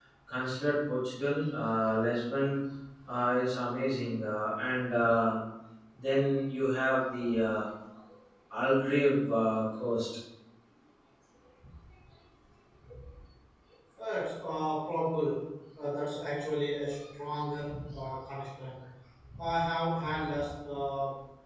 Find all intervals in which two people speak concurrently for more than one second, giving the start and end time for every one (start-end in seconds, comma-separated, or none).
none